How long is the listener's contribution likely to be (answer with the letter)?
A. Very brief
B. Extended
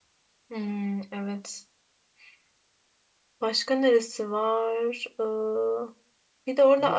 A